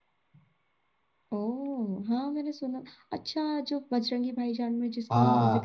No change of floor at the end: No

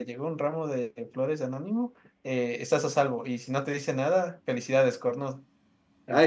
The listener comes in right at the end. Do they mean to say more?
Yes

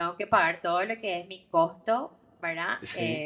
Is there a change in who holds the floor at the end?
No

